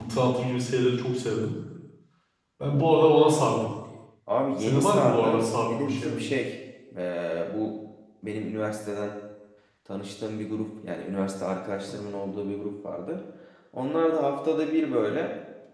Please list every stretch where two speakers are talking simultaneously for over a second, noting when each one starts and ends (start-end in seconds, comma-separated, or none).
4.6-6.2